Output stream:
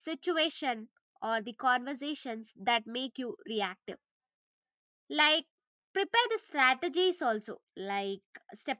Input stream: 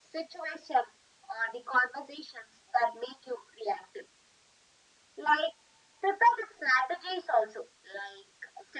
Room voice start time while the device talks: none

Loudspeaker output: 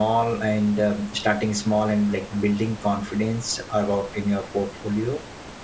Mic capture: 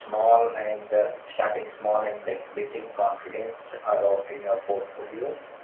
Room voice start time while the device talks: none

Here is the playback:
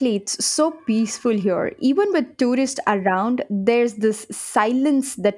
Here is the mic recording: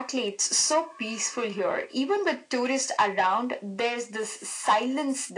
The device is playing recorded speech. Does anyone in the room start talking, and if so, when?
none

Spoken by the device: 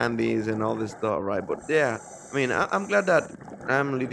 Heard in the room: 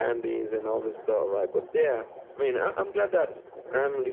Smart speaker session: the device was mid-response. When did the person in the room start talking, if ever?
none

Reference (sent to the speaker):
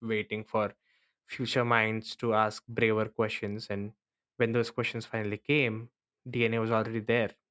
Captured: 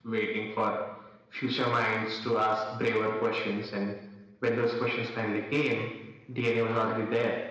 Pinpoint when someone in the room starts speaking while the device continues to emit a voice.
none

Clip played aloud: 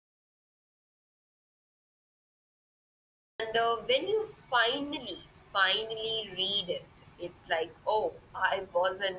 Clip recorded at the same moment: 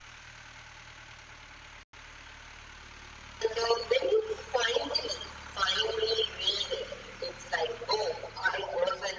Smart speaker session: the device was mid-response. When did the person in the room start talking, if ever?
none

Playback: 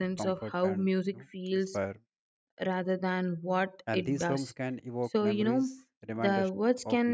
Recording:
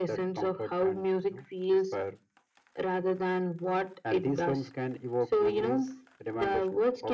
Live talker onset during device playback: none

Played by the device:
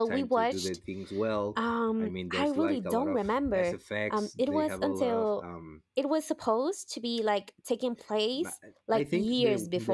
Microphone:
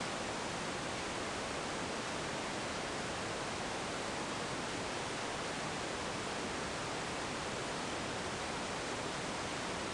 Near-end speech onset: none

